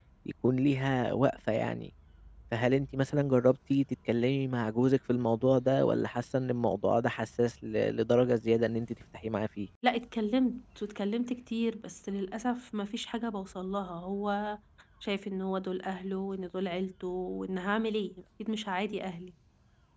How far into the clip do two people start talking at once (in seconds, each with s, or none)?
none